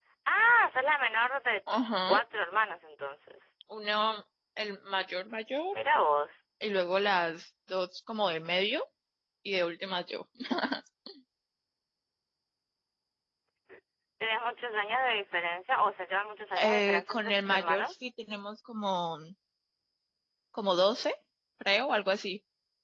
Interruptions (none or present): present